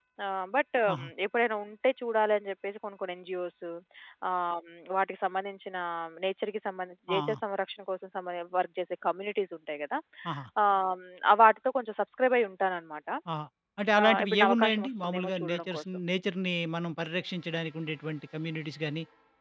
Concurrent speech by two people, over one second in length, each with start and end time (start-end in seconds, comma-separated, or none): 14.0-16.0